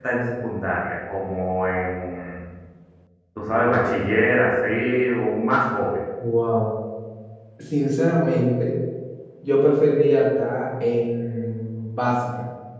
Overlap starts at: none

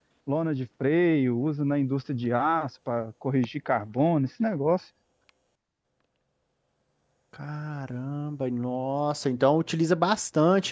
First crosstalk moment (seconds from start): none

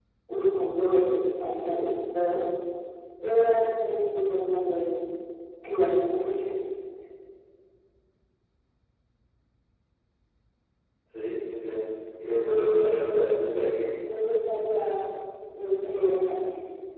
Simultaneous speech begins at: 12.4 s

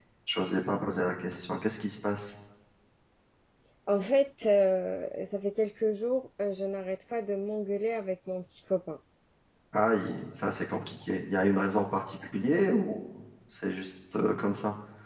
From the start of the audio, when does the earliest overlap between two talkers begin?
none

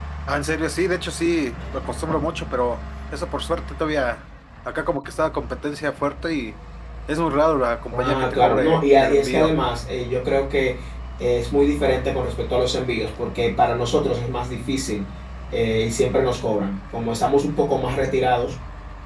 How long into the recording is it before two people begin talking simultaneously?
7.9 s

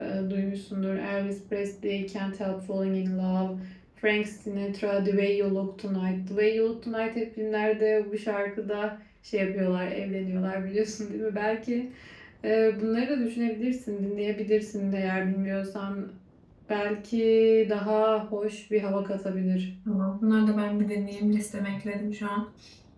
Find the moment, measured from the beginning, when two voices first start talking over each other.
none

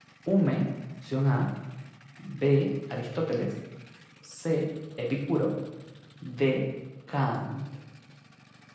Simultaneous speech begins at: none

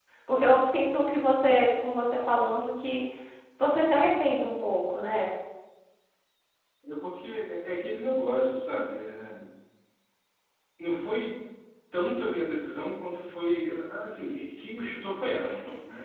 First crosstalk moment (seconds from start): none

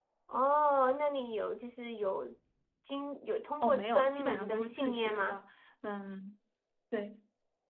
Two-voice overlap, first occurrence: 3.6 s

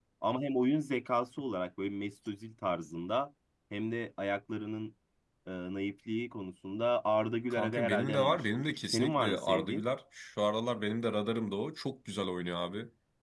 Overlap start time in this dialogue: 7.5 s

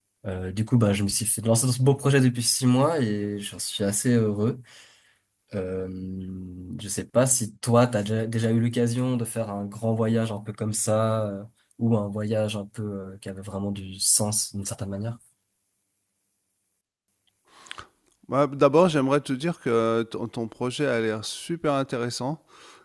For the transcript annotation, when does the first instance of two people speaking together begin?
none

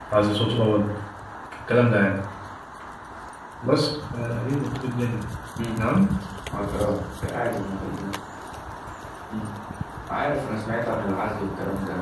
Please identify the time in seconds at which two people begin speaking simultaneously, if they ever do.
none

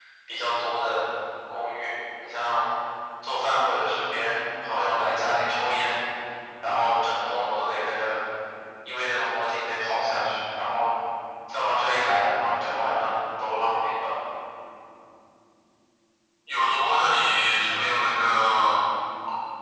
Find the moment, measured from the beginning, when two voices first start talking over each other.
none

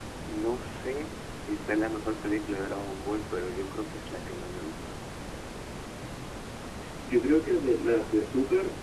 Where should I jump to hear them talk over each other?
none

